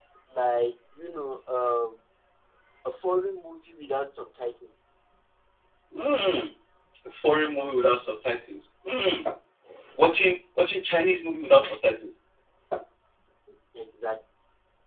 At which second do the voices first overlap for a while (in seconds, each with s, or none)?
none